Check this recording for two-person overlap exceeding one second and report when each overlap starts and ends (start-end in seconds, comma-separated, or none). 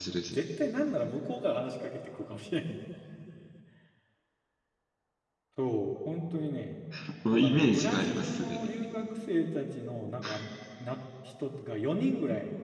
7.3-8.7